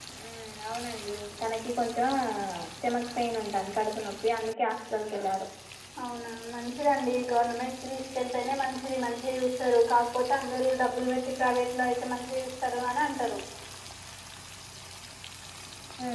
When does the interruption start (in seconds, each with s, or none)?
none